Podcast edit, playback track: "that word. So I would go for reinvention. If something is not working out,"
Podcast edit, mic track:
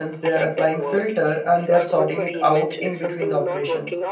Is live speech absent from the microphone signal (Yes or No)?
No